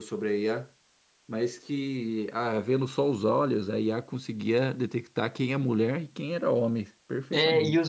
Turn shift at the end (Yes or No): Yes